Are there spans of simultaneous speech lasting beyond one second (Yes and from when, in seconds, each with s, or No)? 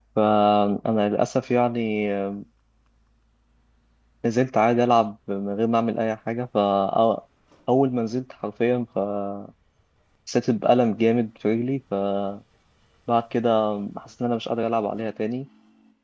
No